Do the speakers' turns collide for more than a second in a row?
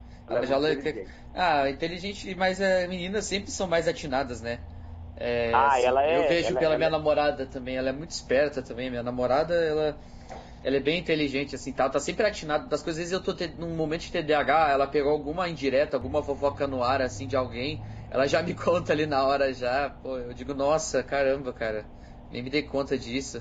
Yes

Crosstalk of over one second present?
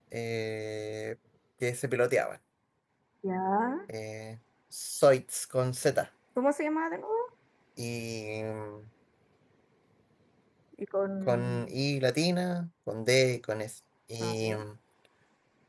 No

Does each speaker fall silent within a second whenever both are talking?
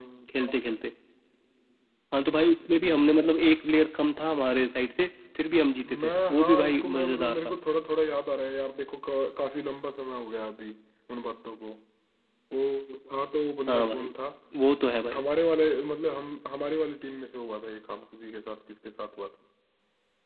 No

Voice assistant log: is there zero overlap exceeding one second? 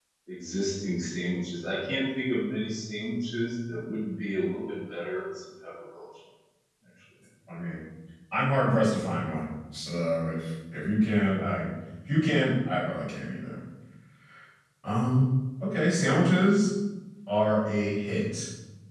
Yes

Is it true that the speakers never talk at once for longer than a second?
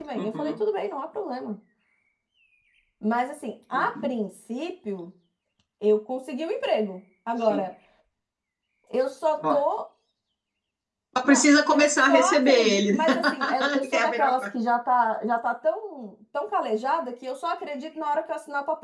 No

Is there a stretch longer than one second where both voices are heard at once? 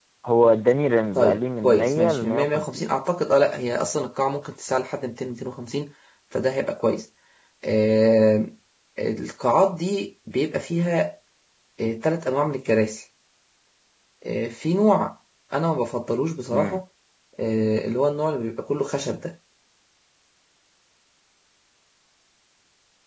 Yes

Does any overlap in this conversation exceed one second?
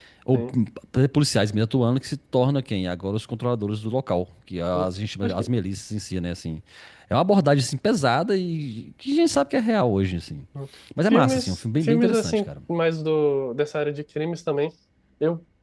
Yes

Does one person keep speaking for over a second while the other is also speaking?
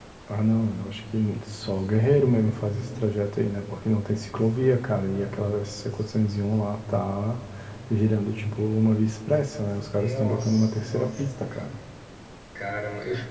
Yes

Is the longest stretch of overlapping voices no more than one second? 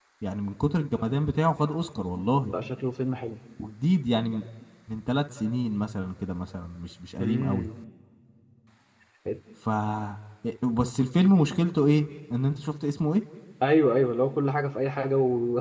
Yes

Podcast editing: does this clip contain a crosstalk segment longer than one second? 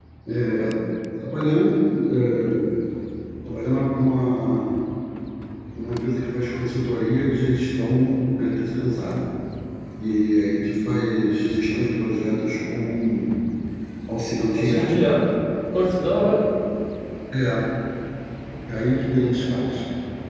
No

